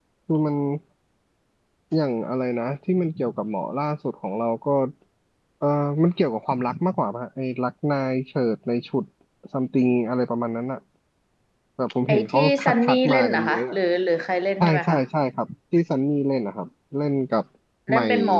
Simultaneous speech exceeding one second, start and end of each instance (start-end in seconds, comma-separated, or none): 12.1-13.8